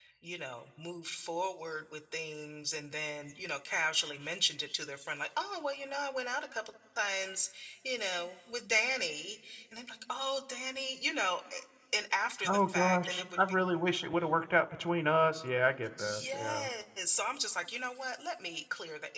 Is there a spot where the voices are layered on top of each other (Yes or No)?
Yes